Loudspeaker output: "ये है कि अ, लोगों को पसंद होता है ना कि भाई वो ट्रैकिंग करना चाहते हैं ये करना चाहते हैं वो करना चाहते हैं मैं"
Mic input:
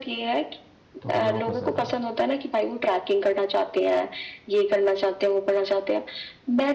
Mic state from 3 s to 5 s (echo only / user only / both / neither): echo only